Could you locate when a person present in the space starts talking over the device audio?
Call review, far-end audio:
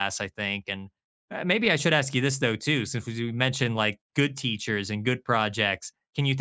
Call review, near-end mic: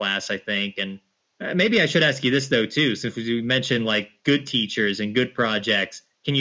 none

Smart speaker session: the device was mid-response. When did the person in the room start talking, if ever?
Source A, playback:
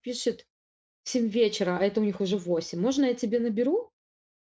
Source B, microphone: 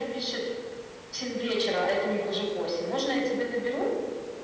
none

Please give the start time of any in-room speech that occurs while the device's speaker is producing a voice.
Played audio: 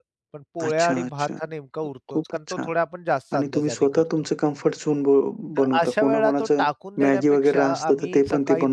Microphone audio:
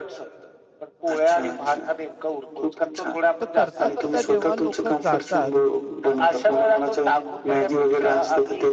3 s

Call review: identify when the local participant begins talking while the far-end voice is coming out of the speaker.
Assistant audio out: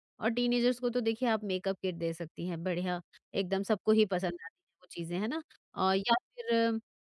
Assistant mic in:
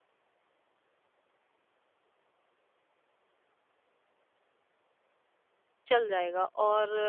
6 s

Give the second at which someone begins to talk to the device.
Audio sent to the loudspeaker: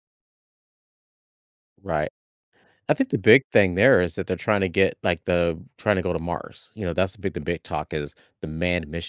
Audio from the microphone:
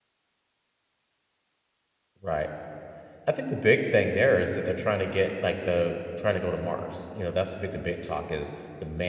none

